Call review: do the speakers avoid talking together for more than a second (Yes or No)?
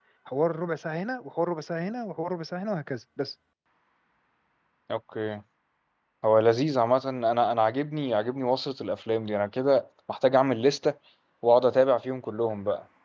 Yes